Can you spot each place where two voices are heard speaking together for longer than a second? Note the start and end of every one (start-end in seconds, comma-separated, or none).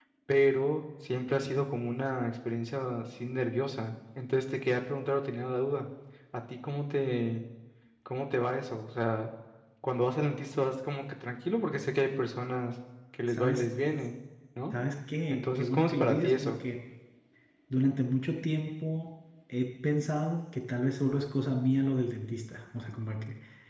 15.3-16.5